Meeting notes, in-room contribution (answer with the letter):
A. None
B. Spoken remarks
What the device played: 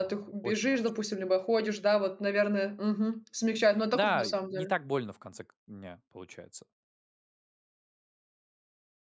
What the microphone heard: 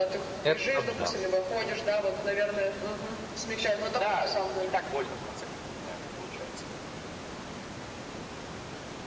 B